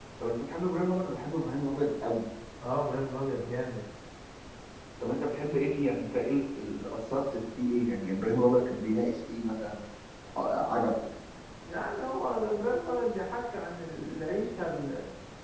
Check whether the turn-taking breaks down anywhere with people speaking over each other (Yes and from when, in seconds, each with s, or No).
No